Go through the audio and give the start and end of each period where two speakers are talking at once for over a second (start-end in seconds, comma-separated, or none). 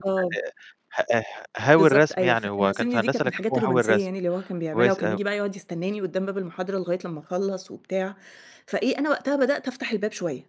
1.8-4.0